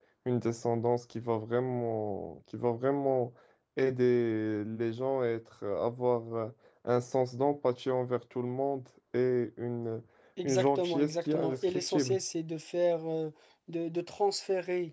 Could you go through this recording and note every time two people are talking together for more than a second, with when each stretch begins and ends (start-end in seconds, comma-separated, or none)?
10.4-12.2